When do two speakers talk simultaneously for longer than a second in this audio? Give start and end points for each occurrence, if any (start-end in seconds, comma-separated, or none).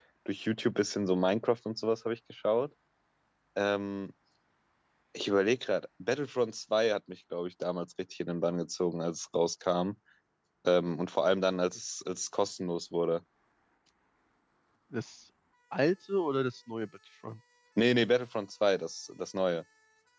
none